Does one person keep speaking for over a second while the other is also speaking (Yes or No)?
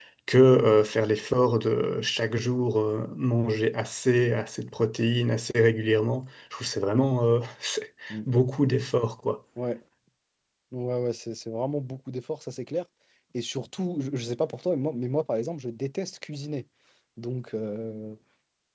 No